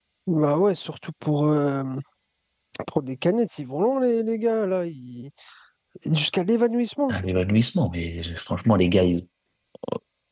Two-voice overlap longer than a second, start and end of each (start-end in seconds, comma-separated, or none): none